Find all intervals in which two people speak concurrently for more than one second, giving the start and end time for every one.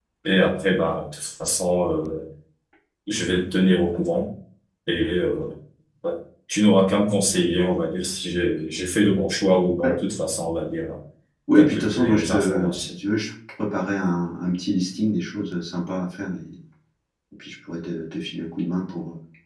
11.6-12.9

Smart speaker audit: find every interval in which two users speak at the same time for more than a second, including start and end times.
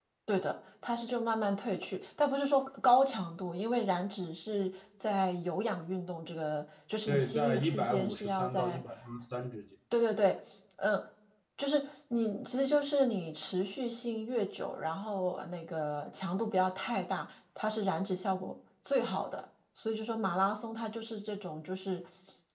7.1-8.8

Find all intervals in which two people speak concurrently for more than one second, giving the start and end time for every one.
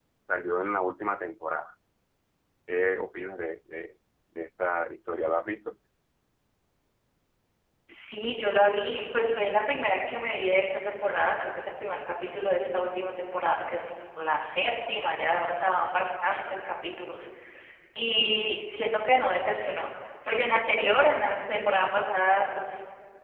none

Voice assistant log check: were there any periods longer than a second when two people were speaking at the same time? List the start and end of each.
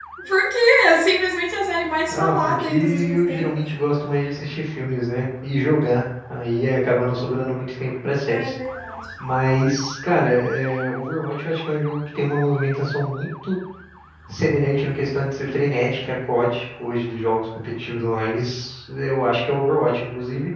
2.1-3.6

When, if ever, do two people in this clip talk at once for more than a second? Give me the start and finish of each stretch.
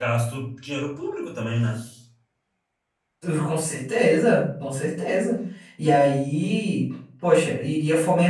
none

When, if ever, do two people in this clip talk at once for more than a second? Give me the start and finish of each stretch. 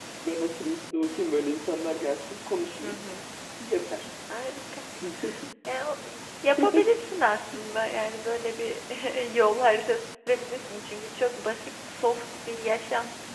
none

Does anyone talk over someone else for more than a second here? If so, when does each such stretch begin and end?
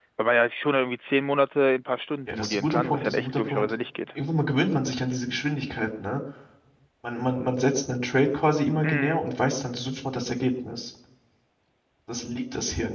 2.3-3.7

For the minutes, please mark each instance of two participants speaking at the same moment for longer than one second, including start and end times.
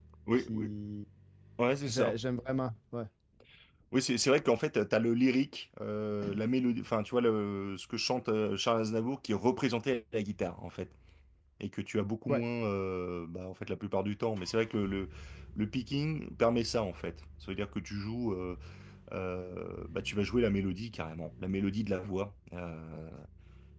none

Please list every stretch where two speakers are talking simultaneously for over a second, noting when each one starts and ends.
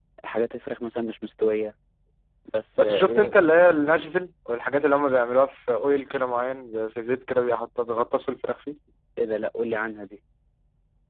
none

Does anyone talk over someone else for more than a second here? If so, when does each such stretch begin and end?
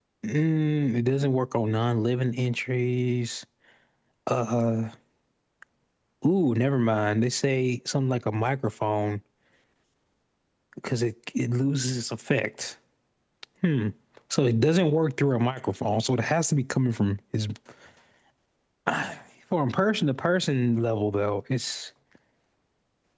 none

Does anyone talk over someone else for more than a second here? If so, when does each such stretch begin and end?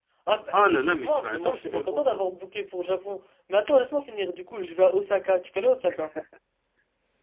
0.5-2.2

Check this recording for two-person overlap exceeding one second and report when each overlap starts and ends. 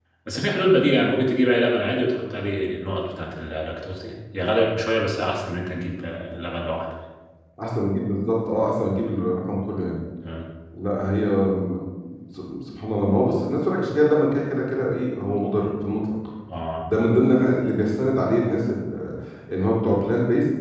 none

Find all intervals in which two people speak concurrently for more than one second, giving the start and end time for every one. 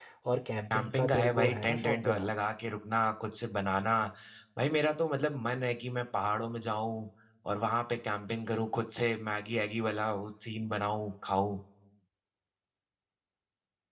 0.7-2.3

